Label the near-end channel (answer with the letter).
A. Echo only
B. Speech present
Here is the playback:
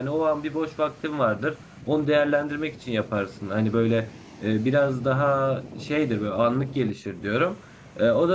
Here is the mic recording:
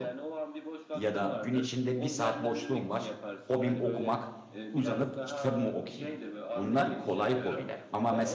B